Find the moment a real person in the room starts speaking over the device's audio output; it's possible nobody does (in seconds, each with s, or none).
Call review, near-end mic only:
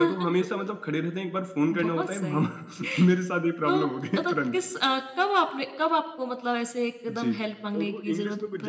7.7 s